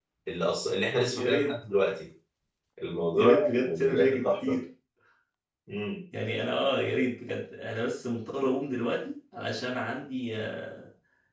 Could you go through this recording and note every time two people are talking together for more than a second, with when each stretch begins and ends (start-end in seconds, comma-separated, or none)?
3.2-4.6